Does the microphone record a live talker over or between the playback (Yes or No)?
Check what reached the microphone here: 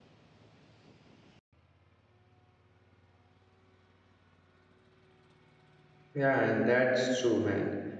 Yes